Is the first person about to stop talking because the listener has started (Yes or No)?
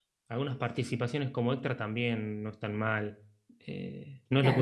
Yes